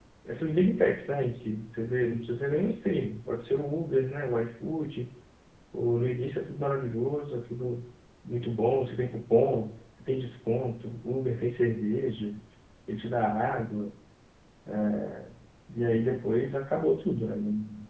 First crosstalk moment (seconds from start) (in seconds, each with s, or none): none